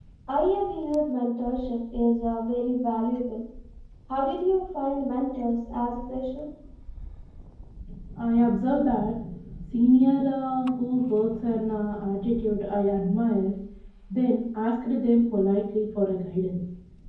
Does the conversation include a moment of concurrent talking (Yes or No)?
No